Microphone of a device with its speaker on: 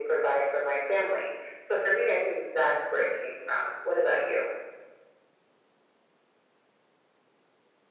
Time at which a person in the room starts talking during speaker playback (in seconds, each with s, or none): none